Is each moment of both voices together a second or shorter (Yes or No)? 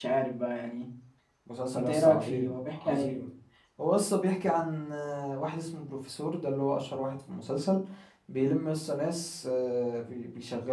No